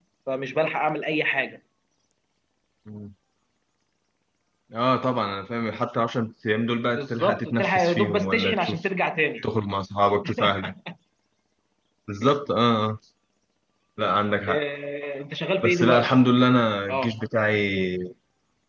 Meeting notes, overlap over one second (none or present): present